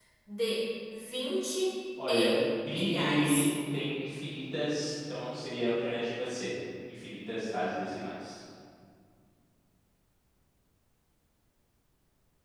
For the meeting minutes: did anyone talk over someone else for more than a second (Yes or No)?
Yes